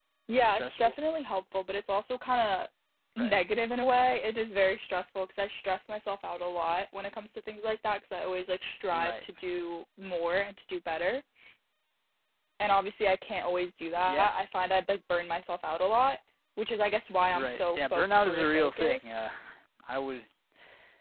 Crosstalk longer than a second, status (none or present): present